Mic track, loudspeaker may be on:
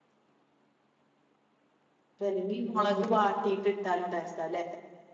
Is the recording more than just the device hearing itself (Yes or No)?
Yes